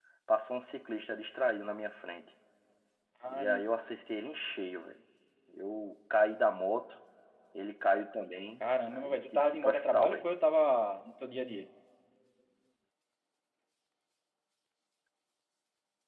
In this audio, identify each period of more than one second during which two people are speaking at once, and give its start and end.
8.6-10.3

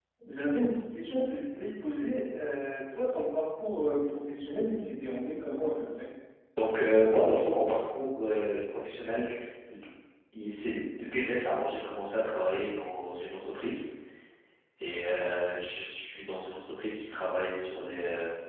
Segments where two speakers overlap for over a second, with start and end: none

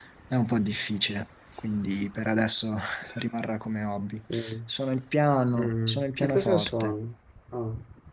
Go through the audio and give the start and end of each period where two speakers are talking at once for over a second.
5.6-6.9

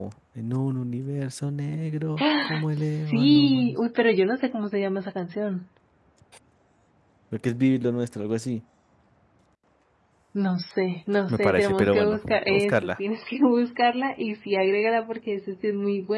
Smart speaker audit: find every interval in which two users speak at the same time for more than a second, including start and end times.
2.2-3.8, 11.3-13.0

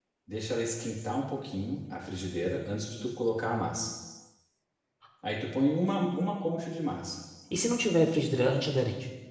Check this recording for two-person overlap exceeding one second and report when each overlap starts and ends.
none

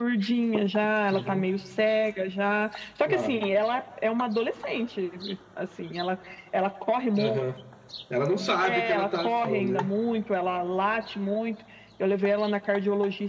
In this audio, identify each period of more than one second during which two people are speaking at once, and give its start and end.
8.6-9.9

